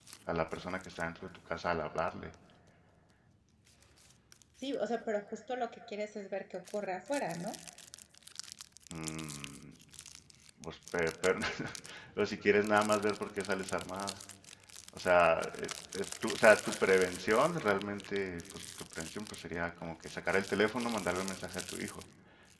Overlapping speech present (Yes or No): No